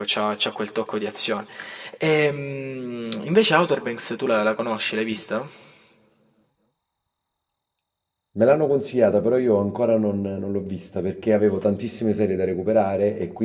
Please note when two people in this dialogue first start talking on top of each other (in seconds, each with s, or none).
none